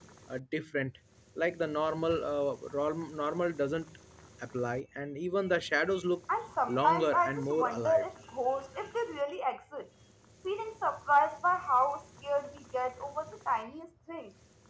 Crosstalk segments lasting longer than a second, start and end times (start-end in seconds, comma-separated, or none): 6.7-8.1